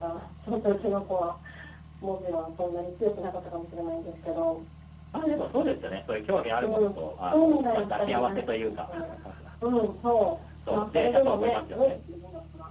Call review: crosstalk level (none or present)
present